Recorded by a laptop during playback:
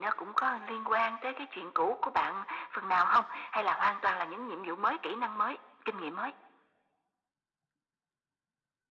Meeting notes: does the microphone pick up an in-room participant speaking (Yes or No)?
No